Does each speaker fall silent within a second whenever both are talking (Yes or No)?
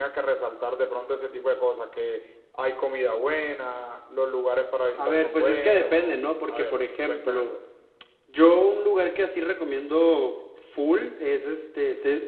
No